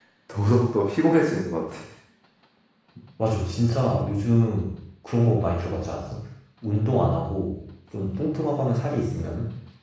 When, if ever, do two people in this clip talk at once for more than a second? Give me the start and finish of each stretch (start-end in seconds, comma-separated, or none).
none